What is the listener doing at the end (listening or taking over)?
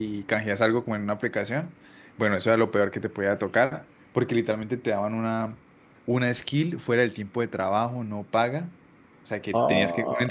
listening